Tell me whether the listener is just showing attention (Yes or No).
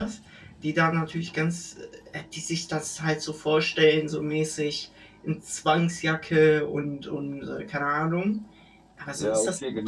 No